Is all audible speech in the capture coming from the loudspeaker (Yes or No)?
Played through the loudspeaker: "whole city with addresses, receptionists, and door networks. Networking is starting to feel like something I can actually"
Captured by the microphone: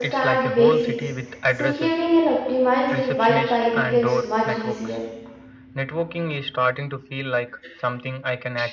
No